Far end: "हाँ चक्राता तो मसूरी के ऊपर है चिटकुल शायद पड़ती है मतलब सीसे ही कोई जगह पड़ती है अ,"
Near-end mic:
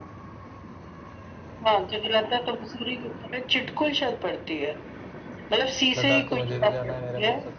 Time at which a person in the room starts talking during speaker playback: 6.0 s

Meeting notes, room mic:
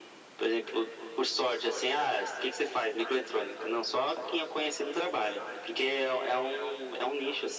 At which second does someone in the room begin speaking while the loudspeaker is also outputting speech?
none

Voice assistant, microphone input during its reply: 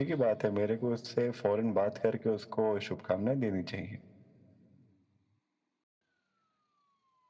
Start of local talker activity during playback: none

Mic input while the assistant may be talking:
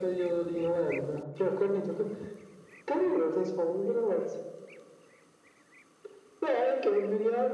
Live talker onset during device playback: none

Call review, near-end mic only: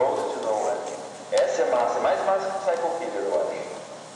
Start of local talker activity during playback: none

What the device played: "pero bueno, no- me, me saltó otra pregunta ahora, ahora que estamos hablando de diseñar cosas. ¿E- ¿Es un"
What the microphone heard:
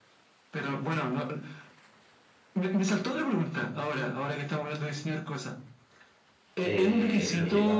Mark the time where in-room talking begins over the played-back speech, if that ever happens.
6.6 s

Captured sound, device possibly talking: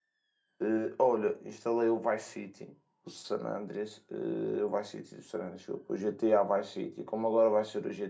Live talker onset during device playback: 0.6 s

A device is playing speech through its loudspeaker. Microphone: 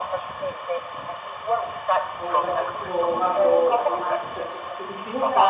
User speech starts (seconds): 2.2 s

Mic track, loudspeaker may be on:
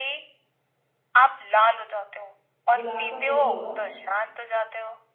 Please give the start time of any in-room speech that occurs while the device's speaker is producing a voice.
2.7 s

